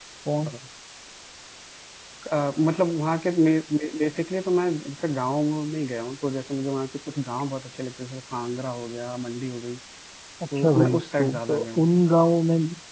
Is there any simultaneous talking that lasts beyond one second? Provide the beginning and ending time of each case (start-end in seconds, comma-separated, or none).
10.6-11.9